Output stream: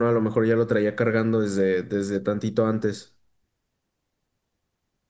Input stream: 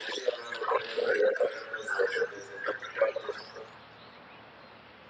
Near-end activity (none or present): none